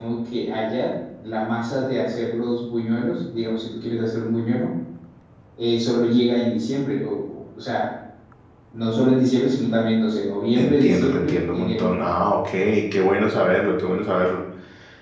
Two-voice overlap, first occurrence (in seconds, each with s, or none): 10.6 s